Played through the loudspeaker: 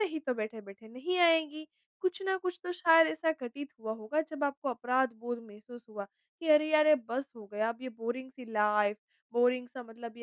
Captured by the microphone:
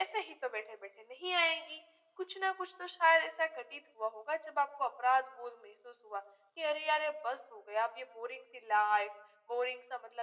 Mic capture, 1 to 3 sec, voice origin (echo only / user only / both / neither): echo only